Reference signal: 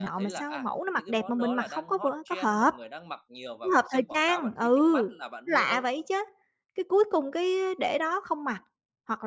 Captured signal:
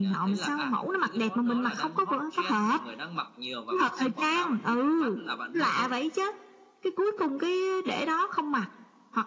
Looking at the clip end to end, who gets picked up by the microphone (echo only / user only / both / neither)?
echo only